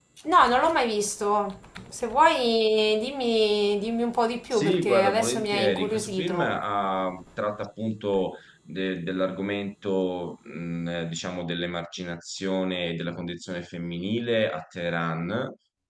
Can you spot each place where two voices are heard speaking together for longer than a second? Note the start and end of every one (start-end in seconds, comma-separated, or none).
4.5-6.6